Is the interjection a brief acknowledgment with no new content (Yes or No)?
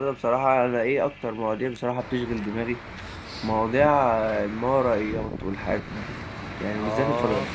Yes